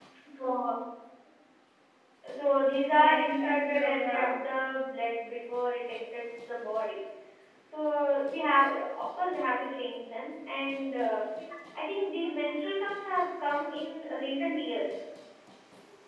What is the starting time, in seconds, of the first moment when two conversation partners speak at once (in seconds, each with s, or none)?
2.9 s